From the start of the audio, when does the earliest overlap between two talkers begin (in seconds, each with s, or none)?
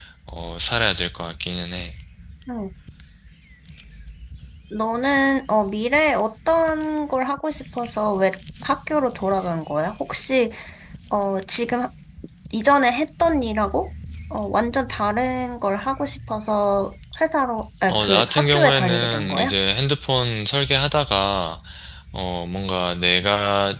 17.9 s